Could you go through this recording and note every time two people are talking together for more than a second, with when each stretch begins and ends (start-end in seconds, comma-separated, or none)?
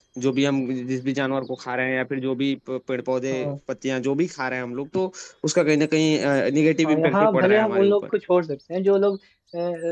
6.8-8.1